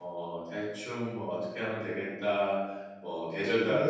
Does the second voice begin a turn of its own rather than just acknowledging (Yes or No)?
Yes